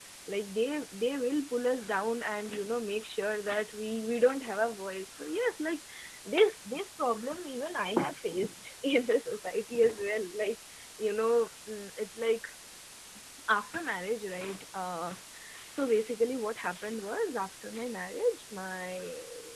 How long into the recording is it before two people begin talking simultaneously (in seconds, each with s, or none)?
none